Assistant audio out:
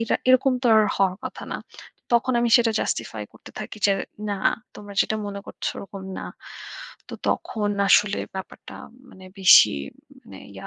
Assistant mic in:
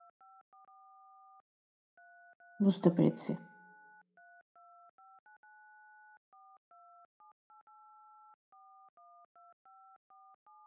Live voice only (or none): বুঝতে পেরেছি।